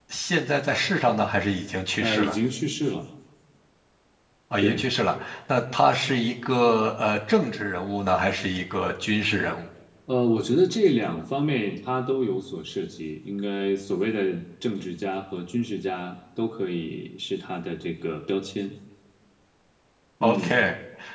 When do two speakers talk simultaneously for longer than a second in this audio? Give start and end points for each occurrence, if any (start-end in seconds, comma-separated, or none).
none